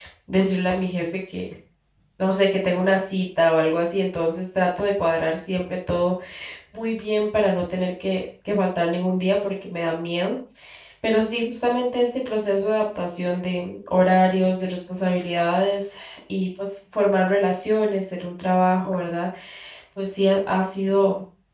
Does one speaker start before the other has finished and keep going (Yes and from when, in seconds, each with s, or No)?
No